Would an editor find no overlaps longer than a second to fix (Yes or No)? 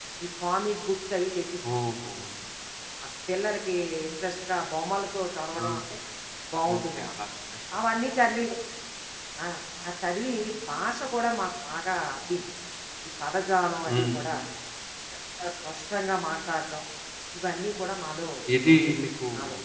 Yes